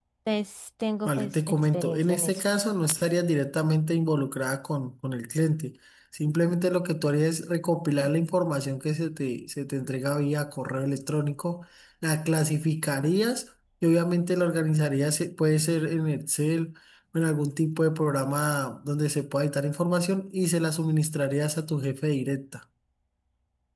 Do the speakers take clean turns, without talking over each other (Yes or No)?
No